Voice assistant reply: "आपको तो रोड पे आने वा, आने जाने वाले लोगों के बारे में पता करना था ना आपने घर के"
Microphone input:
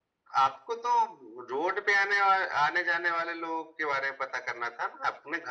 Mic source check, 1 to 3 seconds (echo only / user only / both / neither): echo only